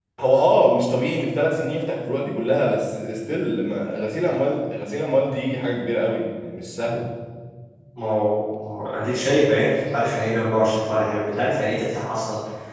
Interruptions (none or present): none